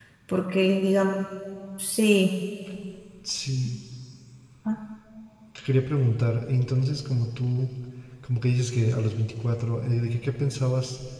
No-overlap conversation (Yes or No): Yes